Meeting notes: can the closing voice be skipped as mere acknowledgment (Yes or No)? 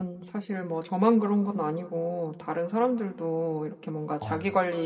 Yes